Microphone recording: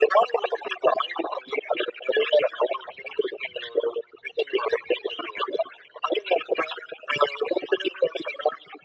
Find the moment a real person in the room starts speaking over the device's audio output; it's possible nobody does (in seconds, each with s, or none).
none